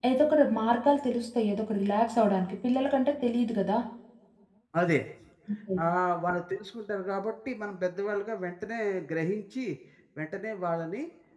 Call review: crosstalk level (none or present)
none